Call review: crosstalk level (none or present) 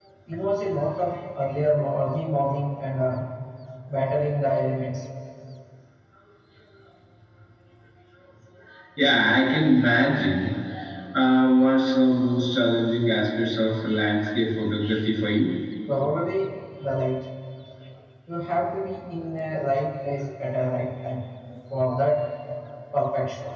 none